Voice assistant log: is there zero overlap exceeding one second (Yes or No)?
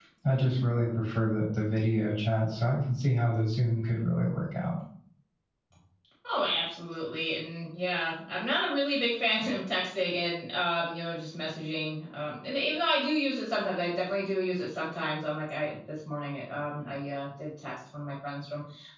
Yes